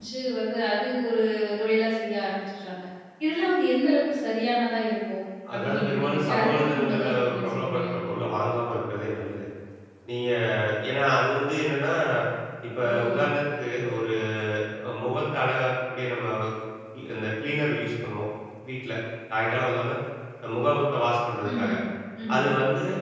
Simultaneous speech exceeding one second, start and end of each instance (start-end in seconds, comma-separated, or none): 5.5-8.0